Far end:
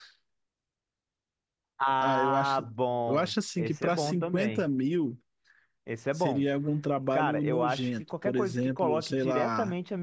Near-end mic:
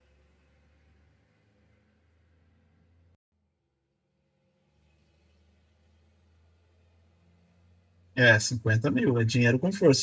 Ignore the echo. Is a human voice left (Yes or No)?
Yes